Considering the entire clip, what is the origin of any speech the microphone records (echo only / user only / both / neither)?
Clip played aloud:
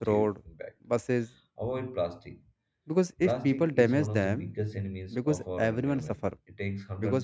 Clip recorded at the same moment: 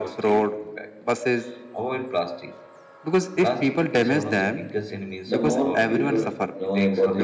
both